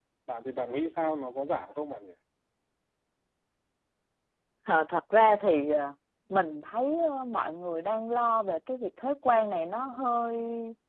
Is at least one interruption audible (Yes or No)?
No